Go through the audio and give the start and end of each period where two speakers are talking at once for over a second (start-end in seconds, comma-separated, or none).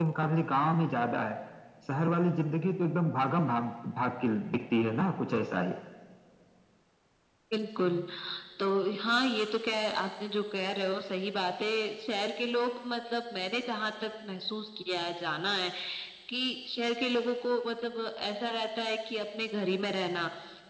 none